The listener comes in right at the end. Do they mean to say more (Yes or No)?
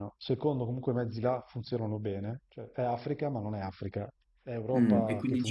Yes